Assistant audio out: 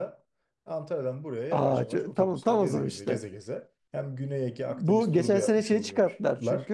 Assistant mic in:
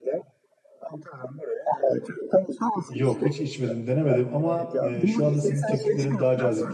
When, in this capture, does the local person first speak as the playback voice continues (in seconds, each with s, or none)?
2.9 s